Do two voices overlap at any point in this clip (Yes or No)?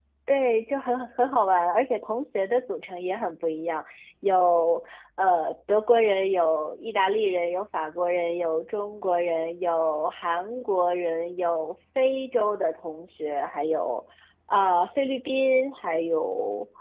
No